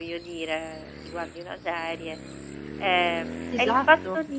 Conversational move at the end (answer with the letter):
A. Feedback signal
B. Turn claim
A